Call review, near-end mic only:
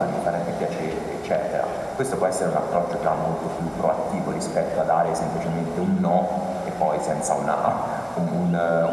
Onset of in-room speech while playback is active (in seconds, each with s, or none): none